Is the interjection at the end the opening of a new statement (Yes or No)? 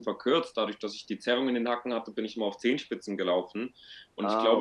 No